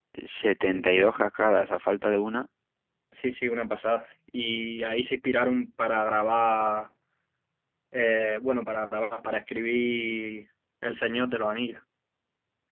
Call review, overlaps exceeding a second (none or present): none